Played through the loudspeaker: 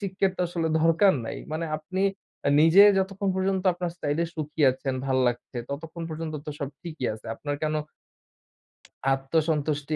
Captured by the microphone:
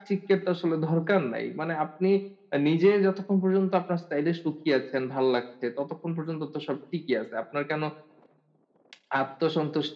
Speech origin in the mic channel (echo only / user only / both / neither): echo only